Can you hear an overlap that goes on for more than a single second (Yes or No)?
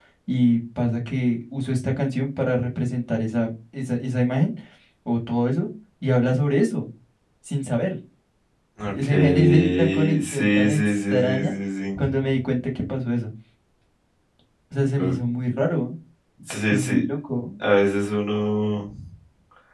Yes